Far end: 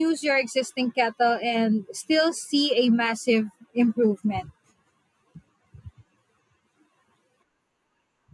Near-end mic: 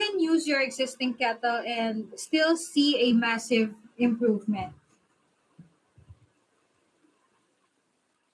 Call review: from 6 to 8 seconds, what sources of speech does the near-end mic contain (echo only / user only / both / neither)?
neither